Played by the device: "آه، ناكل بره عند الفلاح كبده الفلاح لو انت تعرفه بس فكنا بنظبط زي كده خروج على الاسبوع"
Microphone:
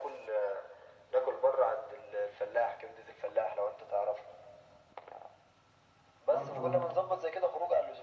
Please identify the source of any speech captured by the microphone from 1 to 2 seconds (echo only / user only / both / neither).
echo only